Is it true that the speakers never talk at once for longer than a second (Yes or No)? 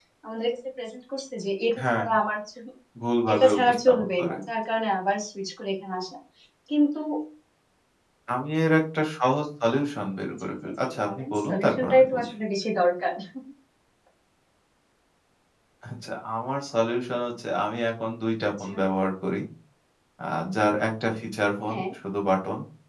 No